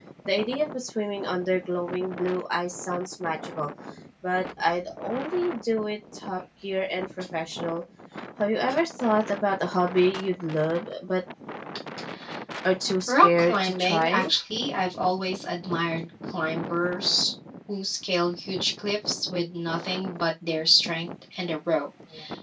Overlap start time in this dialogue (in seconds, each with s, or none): 13.1 s